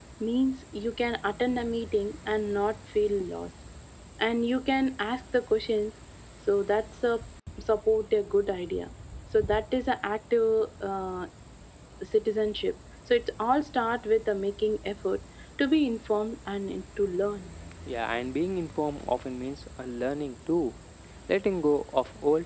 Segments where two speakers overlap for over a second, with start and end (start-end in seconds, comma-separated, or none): none